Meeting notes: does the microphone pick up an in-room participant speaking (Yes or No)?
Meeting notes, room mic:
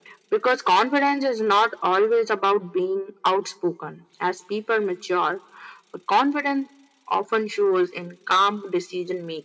No